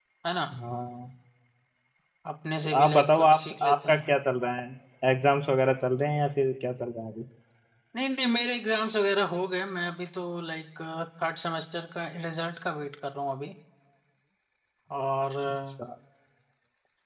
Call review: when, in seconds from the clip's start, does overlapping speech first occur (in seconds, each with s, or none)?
2.6 s